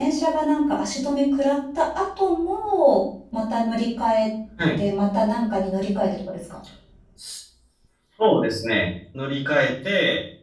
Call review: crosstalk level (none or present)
none